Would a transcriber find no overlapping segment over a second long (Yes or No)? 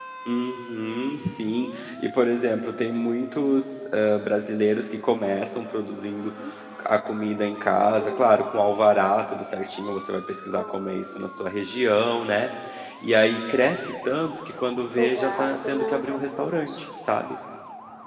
No